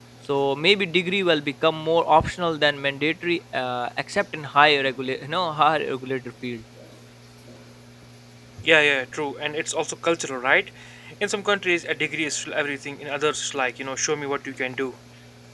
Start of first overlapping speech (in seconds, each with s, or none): none